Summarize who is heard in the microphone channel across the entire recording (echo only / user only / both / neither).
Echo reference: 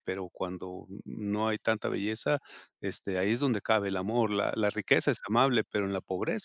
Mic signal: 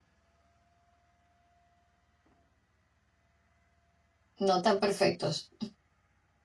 user only